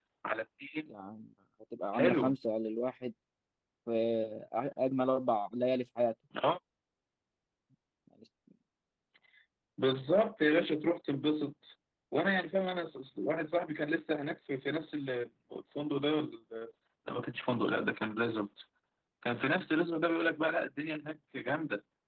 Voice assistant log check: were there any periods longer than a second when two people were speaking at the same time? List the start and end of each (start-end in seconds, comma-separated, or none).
none